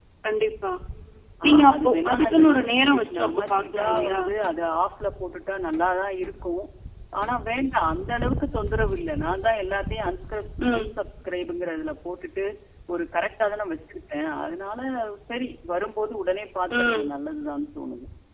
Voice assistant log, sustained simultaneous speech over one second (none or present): present